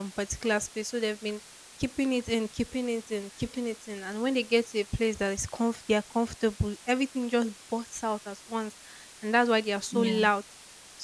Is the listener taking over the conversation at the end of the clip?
No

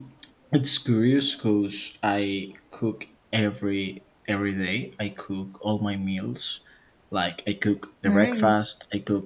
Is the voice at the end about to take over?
No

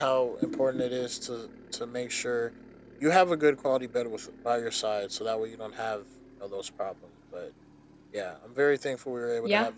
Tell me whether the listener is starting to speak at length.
Yes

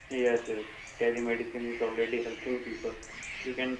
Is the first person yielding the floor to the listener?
No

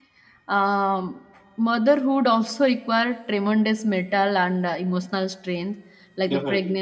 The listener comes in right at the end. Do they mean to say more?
No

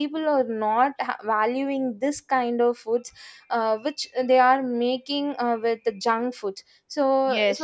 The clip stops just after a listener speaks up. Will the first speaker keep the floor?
No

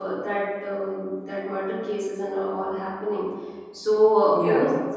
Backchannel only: Yes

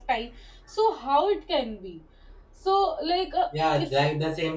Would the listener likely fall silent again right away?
No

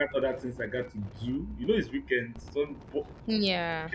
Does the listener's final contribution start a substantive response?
No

